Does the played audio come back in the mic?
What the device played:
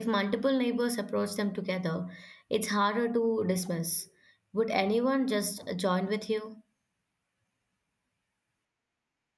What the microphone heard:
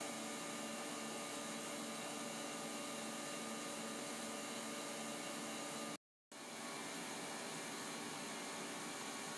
No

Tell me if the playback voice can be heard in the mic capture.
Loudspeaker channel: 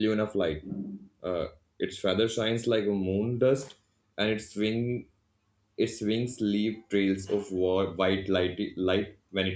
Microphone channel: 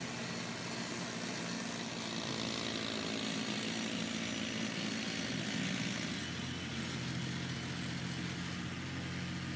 No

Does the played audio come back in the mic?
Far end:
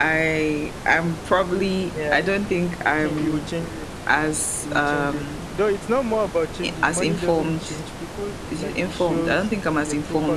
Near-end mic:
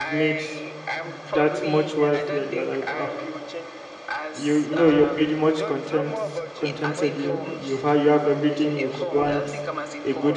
Yes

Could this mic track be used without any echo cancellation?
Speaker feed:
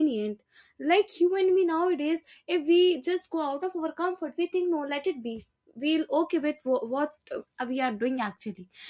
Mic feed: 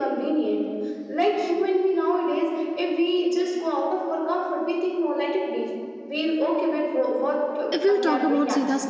No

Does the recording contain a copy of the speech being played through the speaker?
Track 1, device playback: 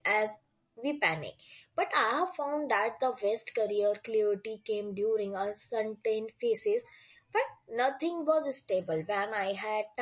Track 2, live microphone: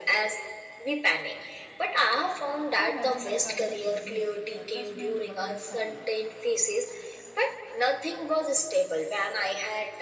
Yes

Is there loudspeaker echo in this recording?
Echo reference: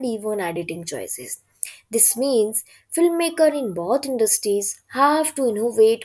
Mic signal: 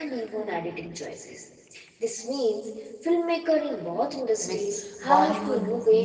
Yes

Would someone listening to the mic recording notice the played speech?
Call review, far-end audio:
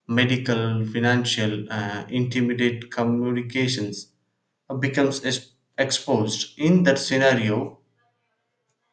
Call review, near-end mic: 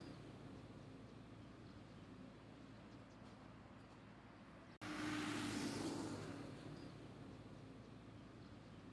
No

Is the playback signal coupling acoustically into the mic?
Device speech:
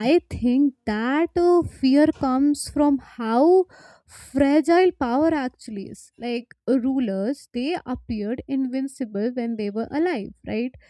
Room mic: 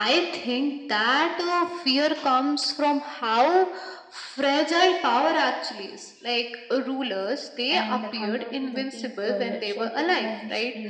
Yes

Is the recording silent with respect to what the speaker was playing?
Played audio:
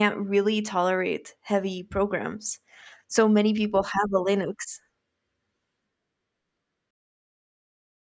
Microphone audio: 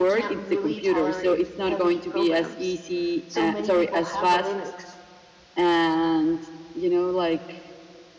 No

